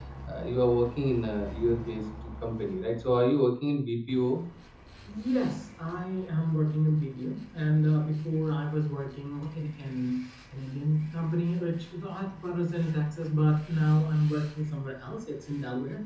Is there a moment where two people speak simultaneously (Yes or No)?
No